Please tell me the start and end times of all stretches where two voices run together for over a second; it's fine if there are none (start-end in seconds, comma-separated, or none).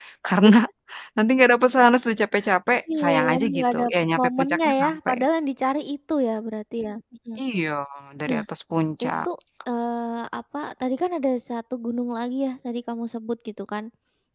3.0-5.2